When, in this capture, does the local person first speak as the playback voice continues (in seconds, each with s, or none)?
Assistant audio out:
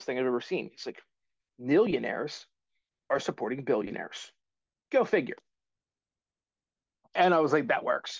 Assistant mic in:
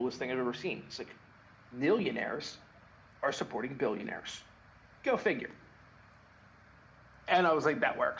none